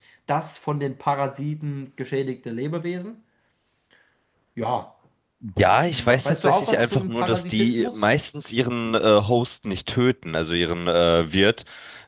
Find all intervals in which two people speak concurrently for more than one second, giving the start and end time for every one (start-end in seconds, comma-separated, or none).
5.7-8.1